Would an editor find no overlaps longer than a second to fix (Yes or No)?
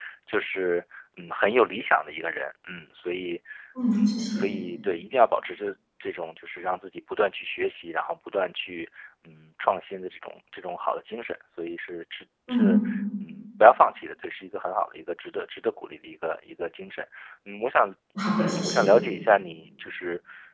Yes